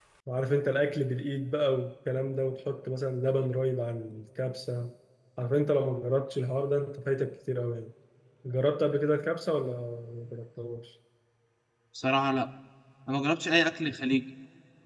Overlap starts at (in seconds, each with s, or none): none